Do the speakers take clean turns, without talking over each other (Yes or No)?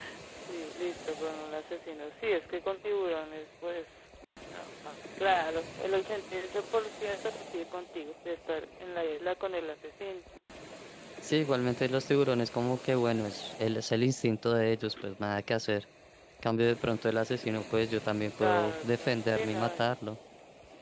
No